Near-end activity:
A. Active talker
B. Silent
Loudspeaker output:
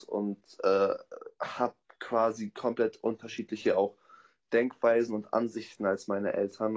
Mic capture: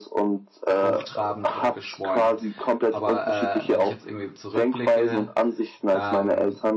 A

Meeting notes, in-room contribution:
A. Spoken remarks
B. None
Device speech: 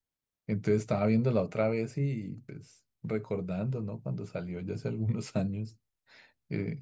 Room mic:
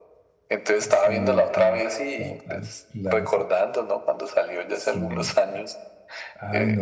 A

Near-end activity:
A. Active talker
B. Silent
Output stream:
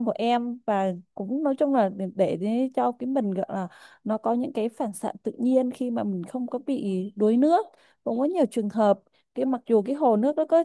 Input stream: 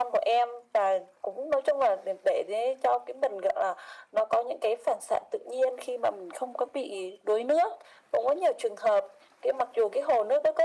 B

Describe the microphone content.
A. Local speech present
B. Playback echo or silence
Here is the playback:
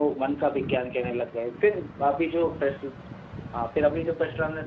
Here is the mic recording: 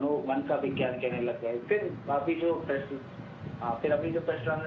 B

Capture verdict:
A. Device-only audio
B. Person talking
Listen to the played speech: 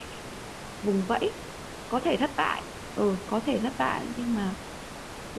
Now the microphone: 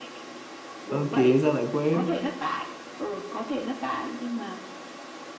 B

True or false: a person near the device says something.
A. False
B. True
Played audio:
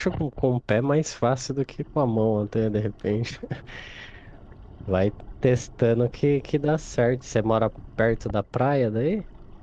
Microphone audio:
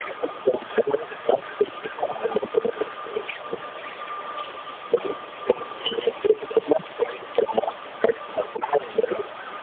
A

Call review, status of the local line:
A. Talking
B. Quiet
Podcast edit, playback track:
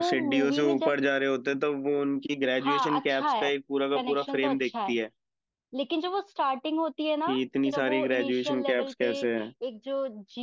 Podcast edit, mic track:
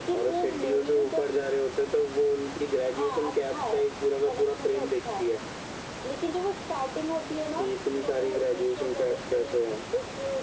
B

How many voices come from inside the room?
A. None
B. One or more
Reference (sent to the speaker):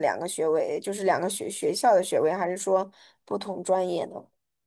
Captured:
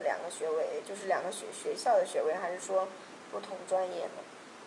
A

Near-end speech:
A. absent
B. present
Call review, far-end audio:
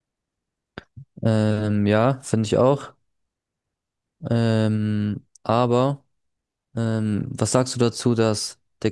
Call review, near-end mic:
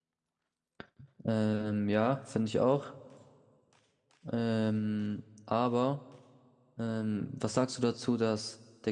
A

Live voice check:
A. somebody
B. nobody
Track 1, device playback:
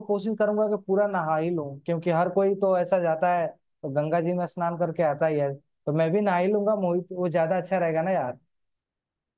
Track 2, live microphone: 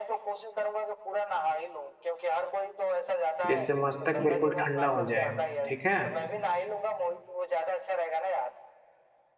A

